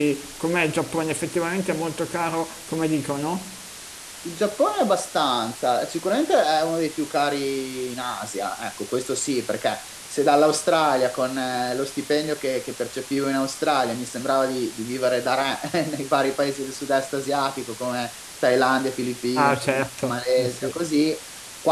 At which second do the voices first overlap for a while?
19.4 s

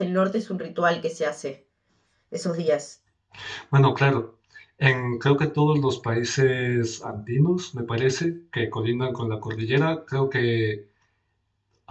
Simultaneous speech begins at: none

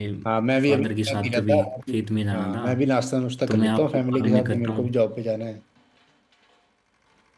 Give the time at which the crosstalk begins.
0.7 s

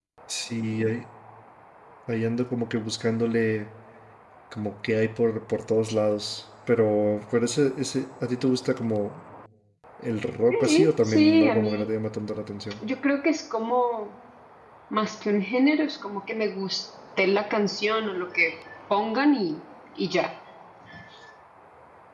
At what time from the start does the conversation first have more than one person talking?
10.5 s

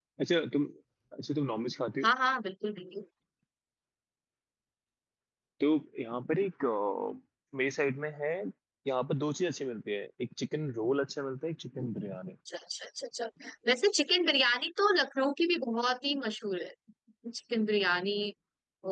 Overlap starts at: none

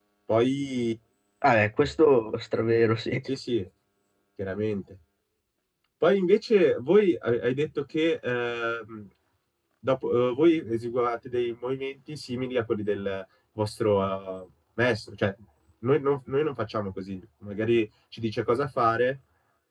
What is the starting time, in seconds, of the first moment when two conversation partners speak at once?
none

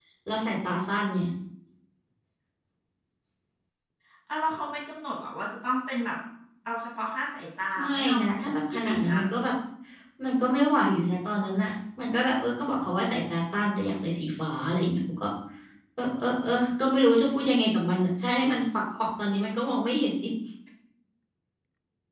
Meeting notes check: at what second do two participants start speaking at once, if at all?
7.8 s

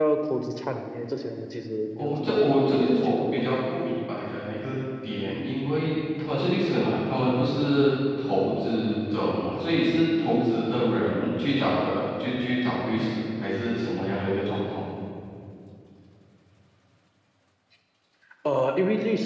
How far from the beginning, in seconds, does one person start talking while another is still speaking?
2.0 s

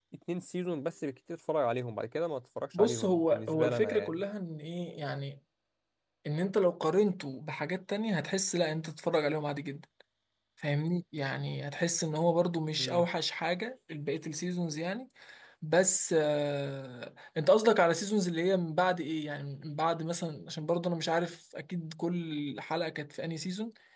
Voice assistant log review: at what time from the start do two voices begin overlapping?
2.7 s

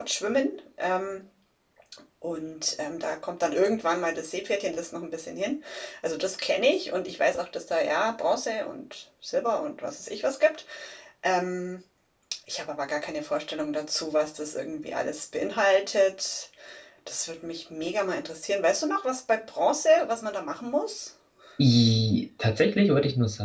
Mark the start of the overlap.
none

